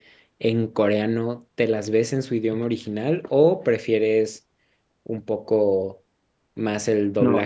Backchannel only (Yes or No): No